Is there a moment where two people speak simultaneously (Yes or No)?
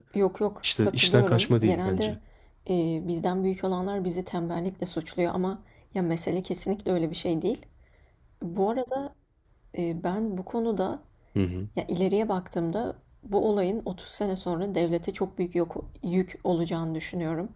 Yes